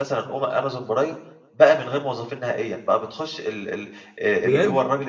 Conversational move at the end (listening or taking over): listening